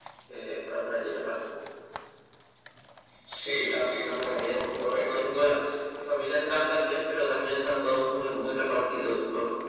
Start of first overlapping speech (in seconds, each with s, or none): 3.7 s